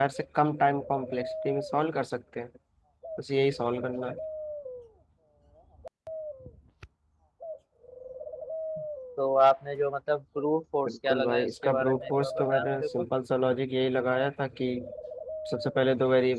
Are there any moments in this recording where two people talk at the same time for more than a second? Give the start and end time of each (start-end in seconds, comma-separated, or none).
10.9-13.1